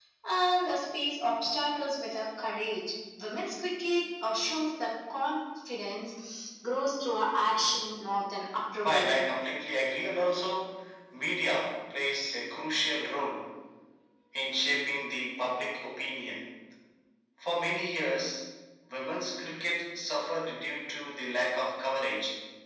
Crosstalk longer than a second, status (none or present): none